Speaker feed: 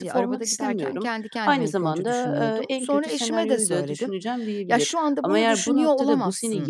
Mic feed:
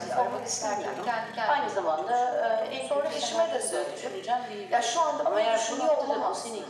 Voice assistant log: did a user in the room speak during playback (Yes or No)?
No